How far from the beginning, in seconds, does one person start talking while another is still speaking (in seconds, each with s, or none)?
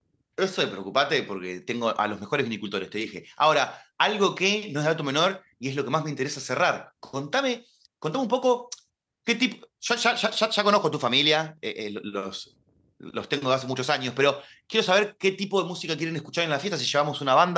none